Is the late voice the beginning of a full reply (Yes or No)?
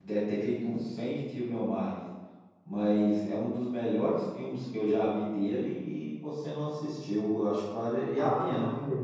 Yes